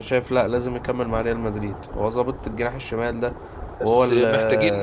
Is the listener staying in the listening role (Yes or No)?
No